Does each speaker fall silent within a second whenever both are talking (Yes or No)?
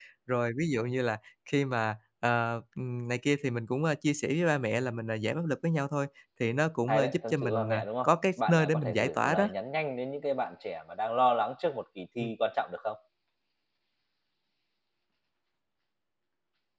No